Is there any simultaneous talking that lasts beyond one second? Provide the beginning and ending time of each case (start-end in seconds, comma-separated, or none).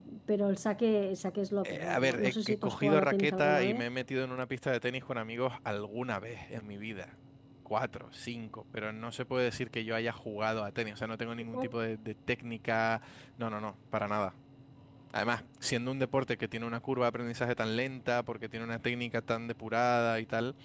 1.6-3.8